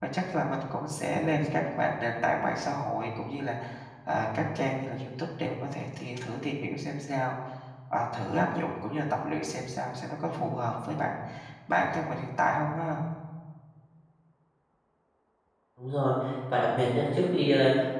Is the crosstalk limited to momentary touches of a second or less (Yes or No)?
Yes